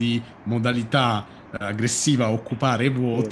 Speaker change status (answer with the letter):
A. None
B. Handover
A